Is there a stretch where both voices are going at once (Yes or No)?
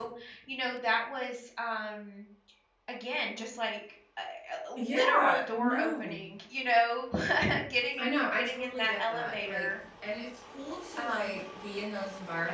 Yes